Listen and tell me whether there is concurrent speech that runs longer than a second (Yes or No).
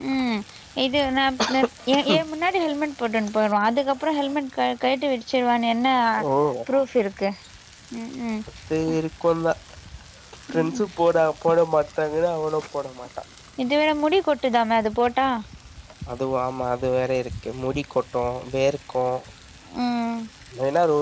No